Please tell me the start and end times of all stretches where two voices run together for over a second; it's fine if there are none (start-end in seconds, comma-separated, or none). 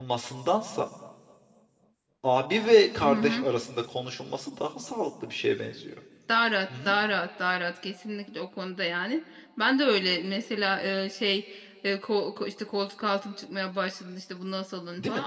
none